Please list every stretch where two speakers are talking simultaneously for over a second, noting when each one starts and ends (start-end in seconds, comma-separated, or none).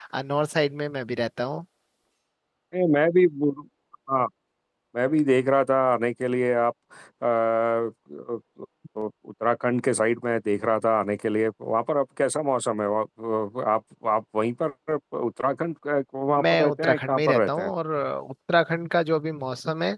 16.4-17.7